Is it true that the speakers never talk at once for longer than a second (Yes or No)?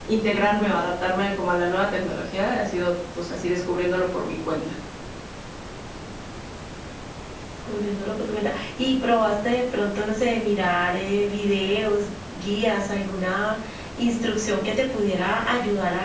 Yes